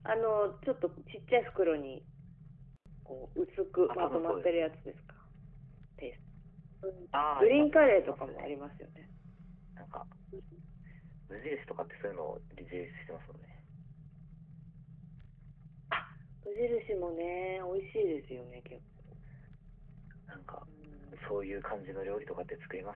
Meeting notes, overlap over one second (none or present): present